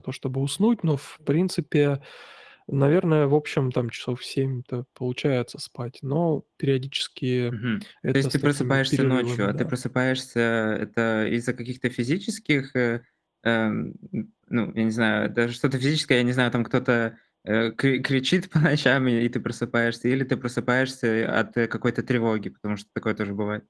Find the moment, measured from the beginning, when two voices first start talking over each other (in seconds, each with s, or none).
8.1 s